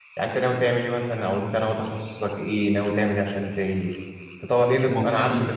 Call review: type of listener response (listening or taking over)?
listening